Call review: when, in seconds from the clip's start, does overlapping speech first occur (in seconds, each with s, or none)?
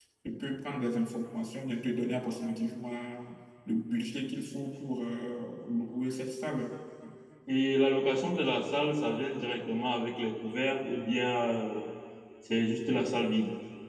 none